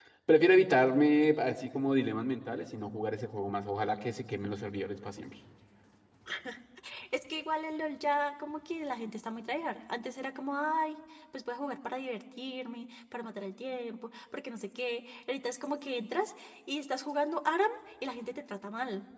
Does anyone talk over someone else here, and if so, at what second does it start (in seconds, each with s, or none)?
none